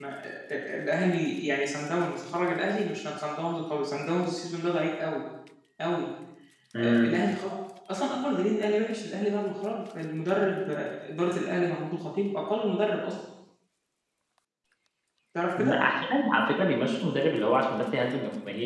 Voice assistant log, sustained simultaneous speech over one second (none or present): none